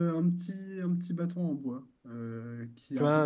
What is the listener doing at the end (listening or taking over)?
listening